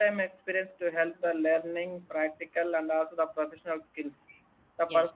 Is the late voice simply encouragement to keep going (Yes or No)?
Yes